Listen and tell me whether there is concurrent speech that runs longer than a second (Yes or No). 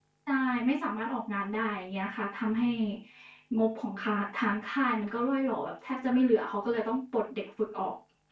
No